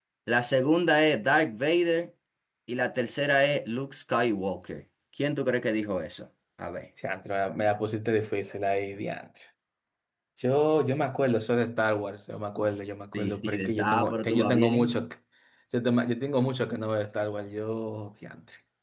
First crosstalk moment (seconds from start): 13 s

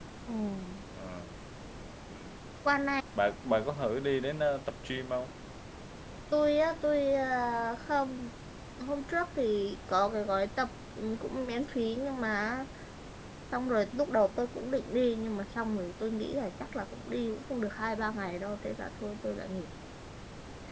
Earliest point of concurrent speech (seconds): none

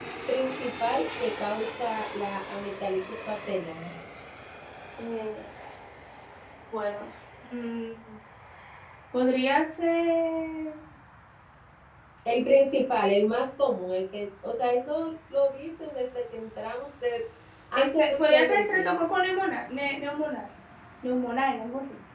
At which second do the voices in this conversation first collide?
18 s

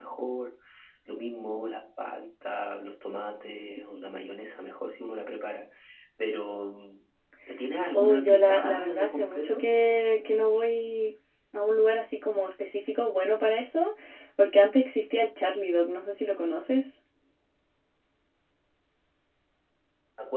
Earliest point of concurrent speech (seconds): 8 s

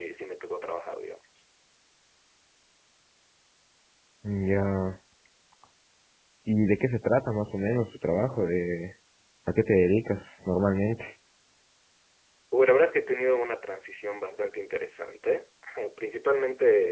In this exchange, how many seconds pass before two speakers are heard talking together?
none

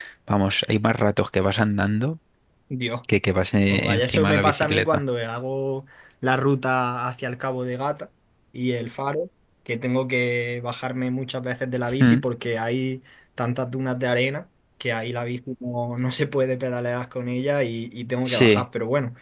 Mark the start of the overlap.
4 s

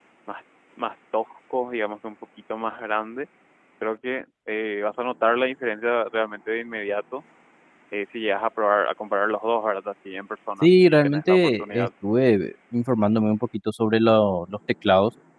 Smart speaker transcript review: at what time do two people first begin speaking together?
11 s

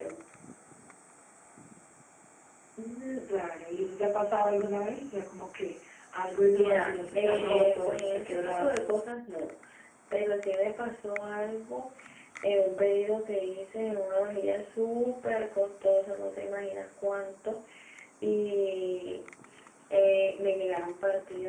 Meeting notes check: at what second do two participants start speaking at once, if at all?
6 s

